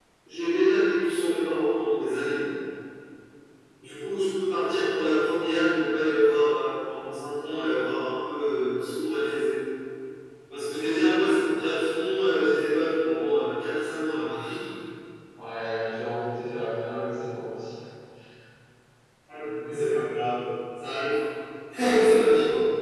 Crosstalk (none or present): none